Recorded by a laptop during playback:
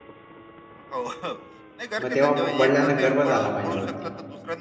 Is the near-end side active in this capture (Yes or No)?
Yes